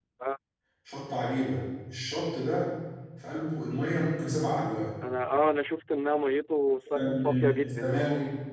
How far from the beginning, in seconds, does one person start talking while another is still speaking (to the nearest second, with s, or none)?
7 s